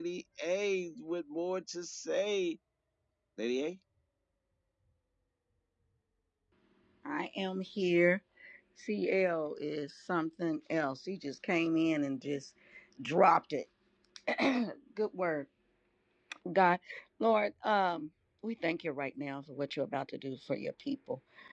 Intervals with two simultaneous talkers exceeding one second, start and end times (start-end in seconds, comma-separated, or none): none